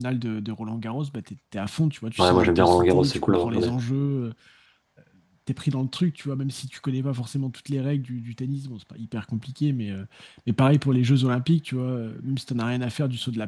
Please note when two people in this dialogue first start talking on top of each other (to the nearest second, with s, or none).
2 s